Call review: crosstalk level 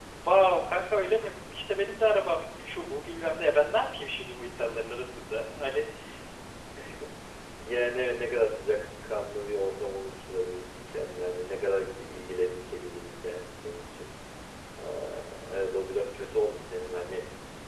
none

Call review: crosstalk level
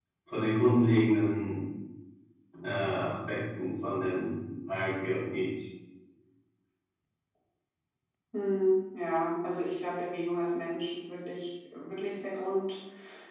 none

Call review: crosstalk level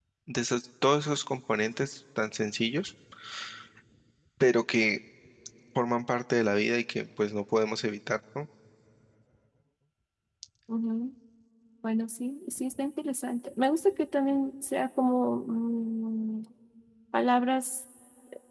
none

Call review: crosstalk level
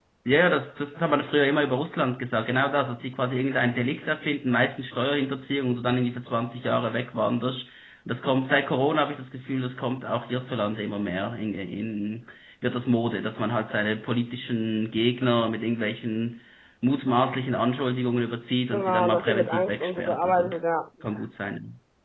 present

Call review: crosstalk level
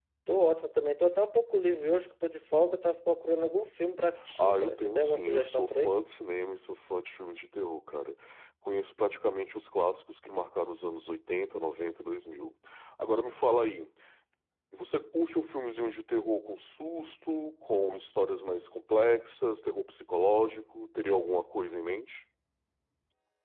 present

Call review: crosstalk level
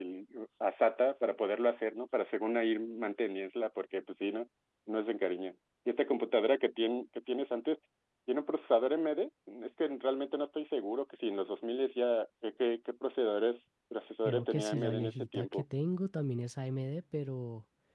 present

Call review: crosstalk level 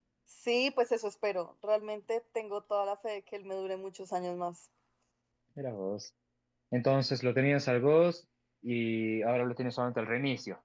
none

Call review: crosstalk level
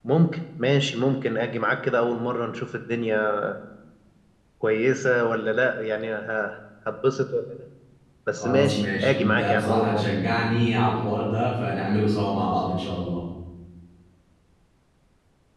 present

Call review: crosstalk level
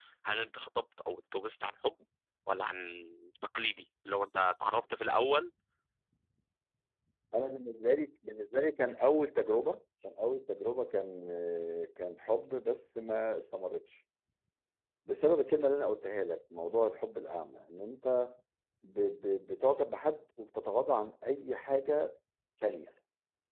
none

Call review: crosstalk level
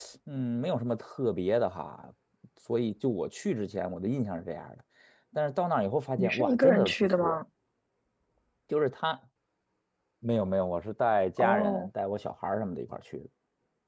present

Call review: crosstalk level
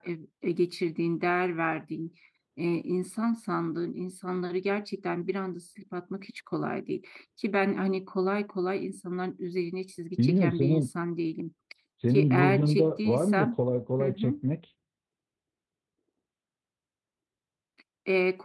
present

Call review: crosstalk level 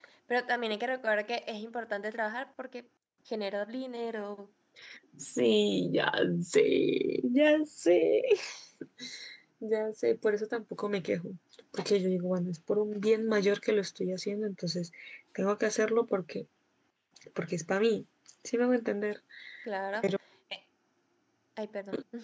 none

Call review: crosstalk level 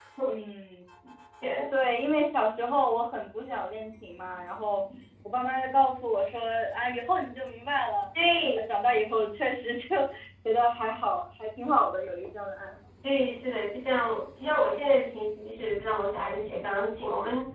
none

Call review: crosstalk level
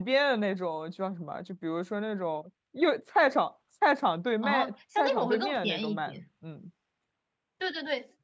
present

